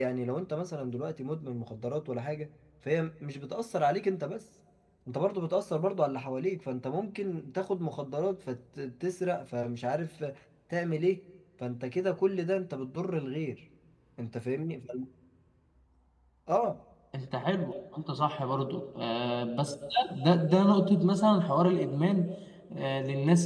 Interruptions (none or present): none